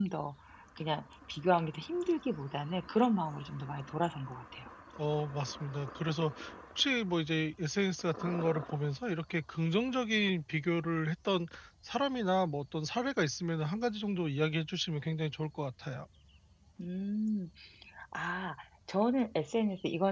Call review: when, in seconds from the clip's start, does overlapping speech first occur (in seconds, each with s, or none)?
none